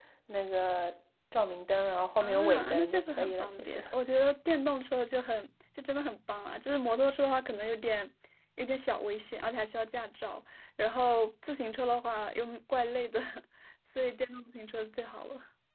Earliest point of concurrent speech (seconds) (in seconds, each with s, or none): 2.2 s